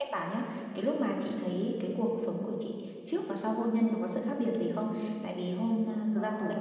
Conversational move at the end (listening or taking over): listening